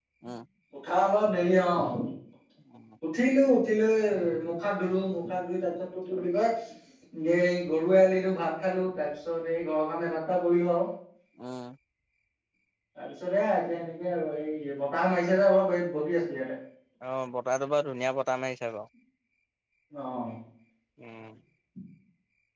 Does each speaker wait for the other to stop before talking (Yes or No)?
Yes